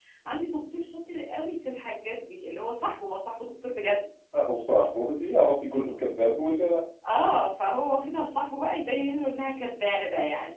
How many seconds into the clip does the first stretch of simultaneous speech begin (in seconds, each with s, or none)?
none